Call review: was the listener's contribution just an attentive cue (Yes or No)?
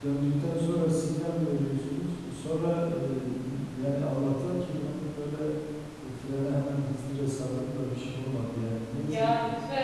No